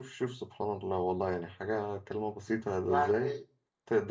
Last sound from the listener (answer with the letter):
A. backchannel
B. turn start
A